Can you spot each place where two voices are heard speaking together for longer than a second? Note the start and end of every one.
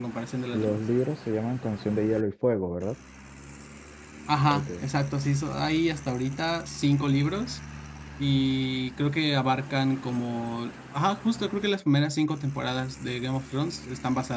none

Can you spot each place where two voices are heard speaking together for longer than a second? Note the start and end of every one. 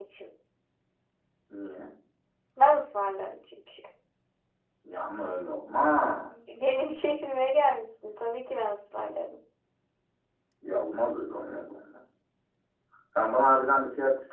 none

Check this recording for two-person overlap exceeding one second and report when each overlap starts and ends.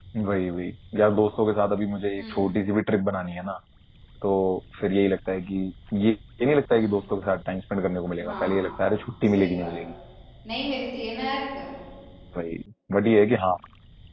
8.2-9.7

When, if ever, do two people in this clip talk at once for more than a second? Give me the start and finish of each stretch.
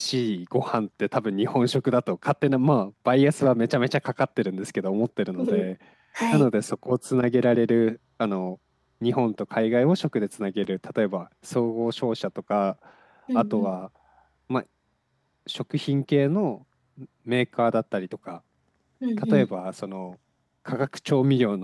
none

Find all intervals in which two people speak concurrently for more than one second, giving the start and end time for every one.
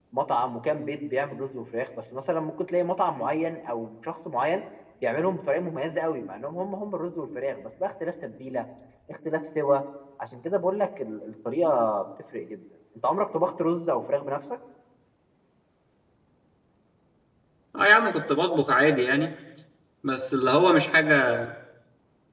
none

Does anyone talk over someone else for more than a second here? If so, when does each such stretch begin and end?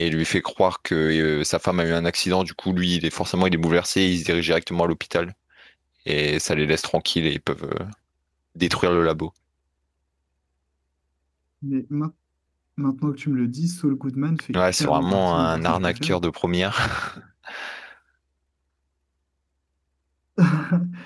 14.5-16.2

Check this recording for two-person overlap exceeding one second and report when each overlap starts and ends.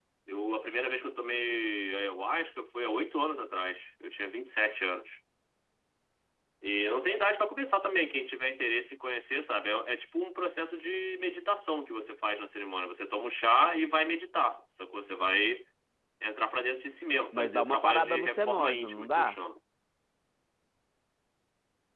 17.3-19.4

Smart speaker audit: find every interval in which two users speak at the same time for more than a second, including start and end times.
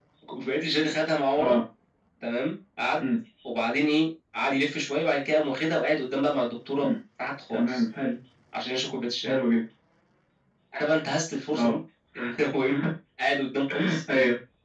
none

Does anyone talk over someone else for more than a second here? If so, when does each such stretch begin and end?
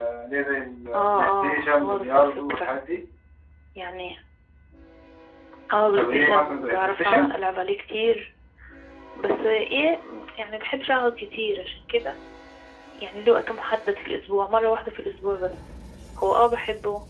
1.0-2.7, 6.0-7.3

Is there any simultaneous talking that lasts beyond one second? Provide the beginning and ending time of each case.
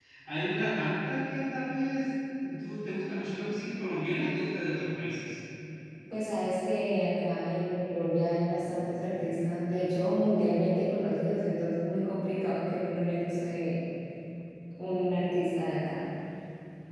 none

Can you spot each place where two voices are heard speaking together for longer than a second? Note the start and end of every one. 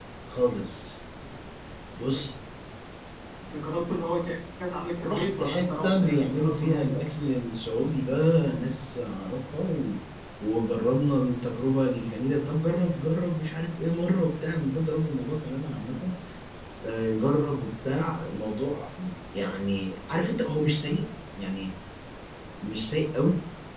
5.1-6.9

